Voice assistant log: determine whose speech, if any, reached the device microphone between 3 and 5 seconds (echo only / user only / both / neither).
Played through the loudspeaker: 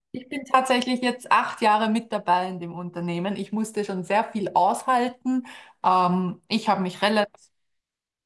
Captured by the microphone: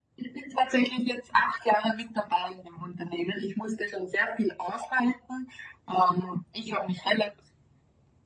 echo only